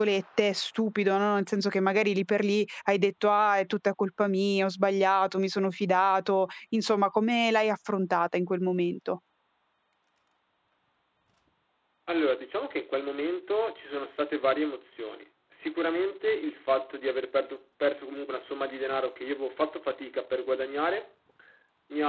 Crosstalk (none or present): none